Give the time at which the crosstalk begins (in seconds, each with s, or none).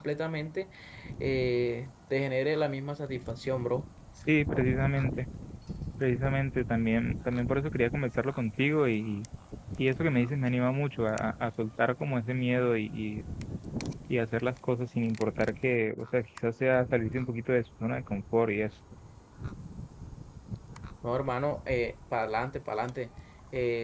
none